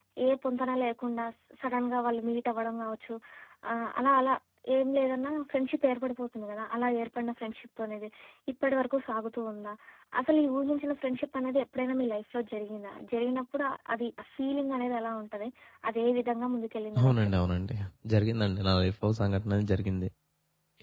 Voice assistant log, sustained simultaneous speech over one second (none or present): none